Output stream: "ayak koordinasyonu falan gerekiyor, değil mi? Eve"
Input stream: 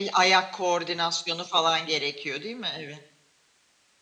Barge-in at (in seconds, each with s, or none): none